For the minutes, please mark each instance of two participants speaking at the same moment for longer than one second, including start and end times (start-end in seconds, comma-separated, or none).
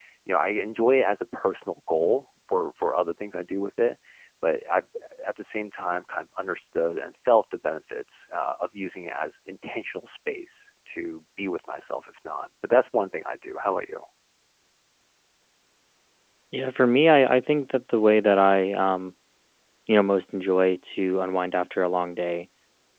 none